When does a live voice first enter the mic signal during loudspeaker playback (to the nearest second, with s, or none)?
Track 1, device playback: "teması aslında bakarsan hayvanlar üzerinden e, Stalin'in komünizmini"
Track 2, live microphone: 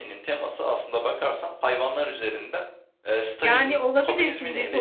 3 s